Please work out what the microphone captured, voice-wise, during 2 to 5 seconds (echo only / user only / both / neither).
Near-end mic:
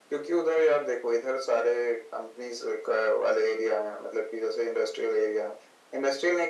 echo only